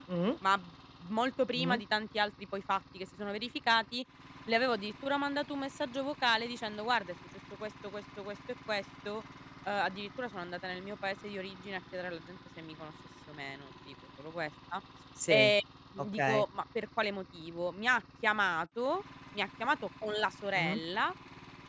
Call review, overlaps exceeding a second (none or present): none